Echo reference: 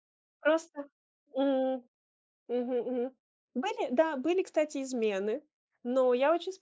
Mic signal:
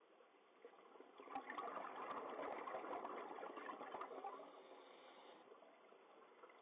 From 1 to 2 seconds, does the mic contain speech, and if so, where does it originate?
neither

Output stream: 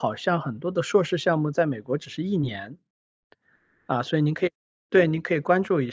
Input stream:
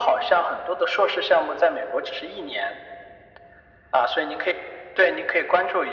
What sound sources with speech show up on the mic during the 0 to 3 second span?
echo only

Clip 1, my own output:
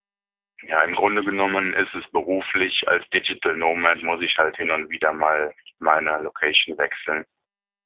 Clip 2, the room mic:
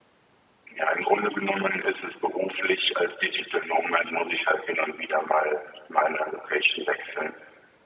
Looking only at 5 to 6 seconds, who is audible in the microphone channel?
echo only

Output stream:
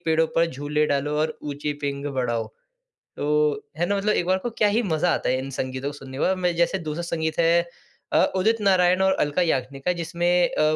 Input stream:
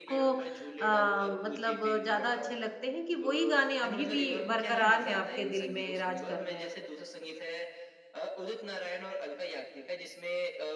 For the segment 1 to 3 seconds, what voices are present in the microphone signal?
both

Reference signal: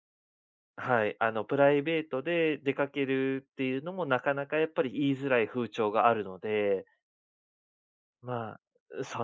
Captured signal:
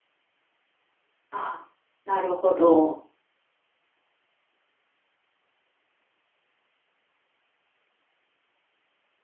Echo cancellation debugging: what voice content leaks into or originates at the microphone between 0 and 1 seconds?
neither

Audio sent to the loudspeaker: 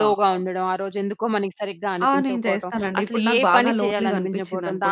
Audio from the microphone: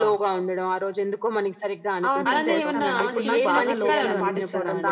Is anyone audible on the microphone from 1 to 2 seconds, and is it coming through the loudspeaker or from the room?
echo only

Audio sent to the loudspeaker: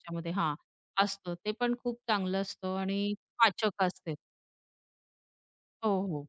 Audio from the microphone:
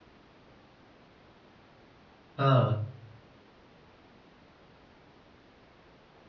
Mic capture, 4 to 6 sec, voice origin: neither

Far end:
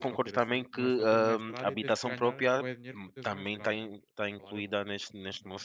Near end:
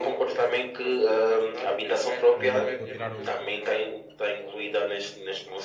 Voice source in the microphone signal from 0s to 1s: echo only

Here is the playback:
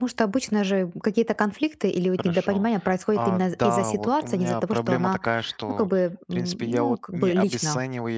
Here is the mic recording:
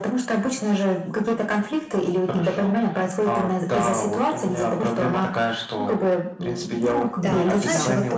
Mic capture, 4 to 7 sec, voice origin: echo only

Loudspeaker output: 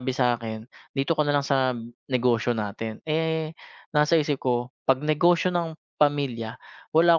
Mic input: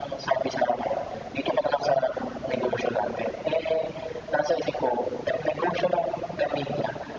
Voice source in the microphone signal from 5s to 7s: echo only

